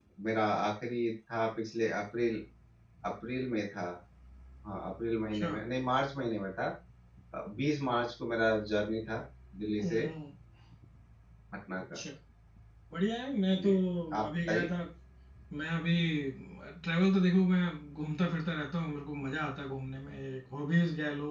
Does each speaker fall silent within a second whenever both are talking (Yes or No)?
Yes